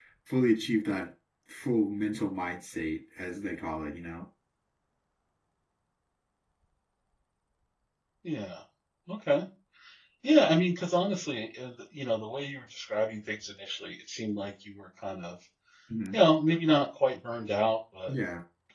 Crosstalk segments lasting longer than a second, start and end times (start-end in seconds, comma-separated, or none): none